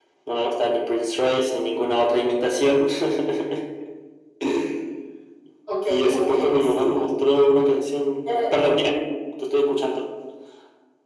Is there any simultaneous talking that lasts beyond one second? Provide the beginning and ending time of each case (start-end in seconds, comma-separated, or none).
5.9-7.1